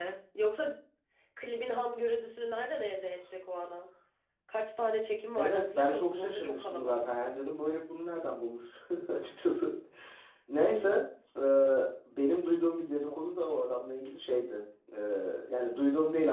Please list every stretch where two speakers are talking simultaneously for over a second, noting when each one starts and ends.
5.4-7.4

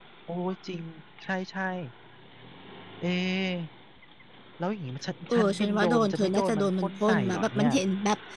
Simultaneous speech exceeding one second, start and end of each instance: 5.3-7.7

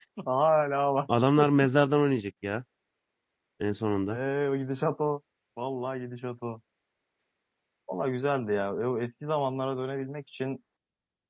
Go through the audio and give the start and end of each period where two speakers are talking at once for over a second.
none

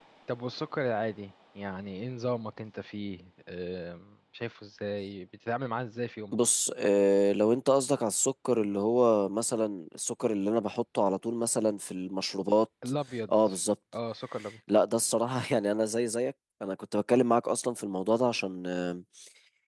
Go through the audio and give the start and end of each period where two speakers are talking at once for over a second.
none

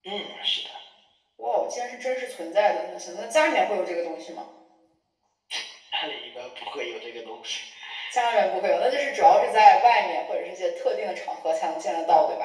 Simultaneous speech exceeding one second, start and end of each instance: none

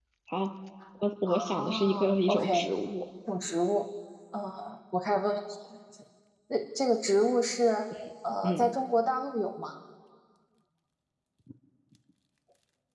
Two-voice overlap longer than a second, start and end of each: 1.3-2.7

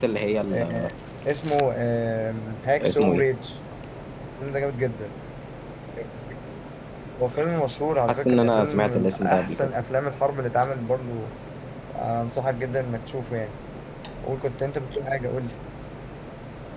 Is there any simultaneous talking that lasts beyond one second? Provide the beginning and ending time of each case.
8.1-9.7

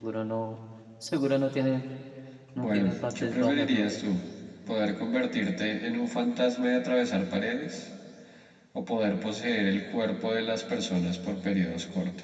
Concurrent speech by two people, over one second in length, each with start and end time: 2.6-4.0

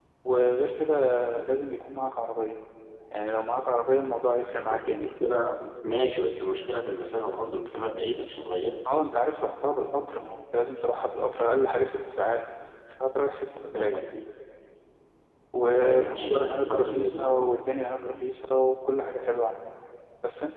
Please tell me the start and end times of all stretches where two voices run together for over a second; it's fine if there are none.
15.8-17.3

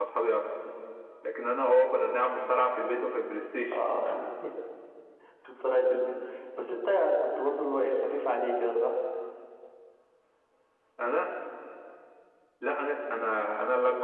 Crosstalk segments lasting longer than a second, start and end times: none

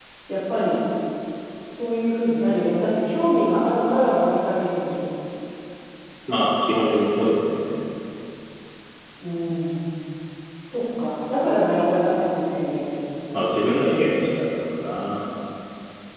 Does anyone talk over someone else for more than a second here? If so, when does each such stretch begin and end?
none

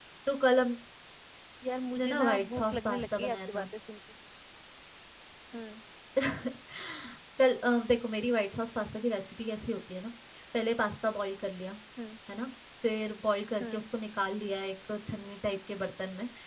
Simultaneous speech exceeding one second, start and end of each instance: 2.0-3.7

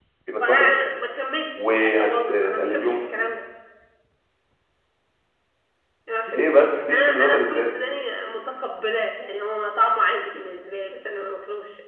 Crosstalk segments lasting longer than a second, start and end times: 1.6-3.0, 6.3-7.7

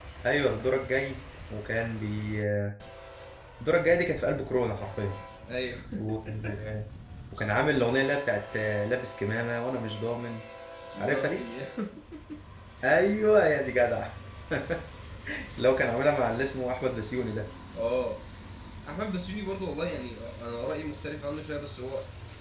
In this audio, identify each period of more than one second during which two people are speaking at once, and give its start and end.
none

